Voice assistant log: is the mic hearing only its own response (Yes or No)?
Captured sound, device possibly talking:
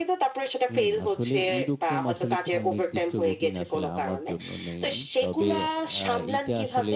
No